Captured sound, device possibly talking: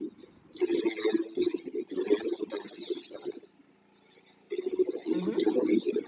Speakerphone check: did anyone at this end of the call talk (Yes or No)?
Yes